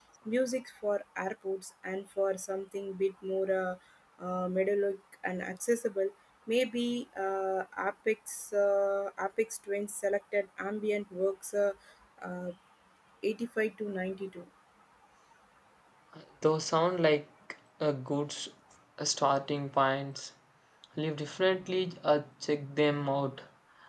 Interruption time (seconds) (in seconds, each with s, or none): none